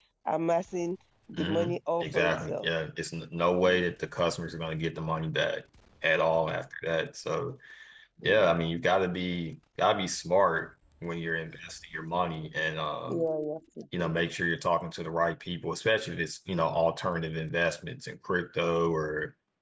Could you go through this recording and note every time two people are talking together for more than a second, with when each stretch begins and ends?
1.4-2.7

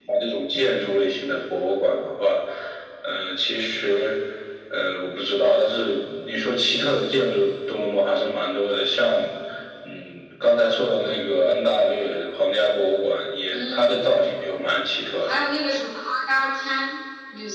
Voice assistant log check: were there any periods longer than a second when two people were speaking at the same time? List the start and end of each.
none

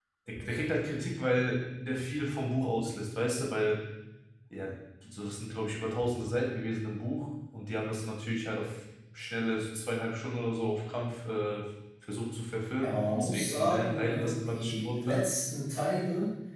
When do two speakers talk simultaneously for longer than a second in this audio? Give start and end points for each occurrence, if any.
12.8-15.2

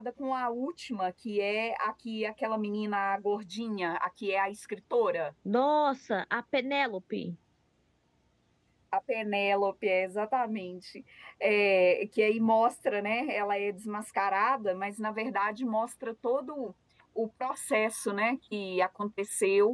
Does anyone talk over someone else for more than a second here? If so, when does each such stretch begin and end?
none

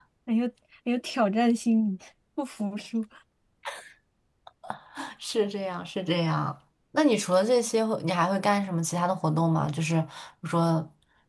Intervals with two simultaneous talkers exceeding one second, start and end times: none

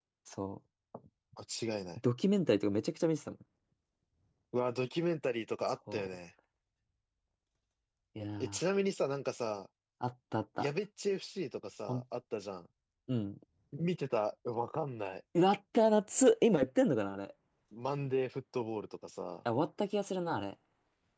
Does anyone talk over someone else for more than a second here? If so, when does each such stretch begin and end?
none

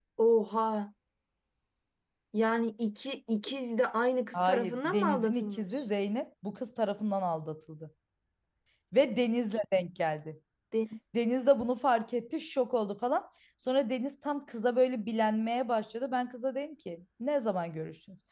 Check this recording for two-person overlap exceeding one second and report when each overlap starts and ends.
4.3-5.8

